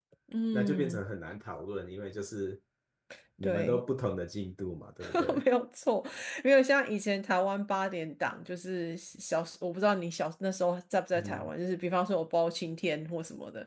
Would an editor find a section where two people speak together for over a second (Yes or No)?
No